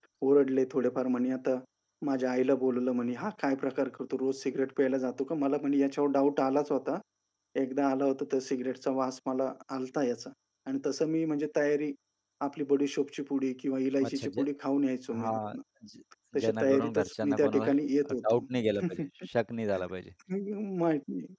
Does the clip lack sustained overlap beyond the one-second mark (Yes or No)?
No